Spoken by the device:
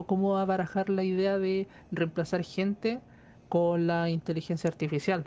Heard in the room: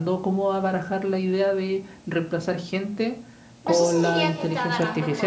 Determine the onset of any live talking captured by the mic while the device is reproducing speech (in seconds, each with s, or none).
3.6 s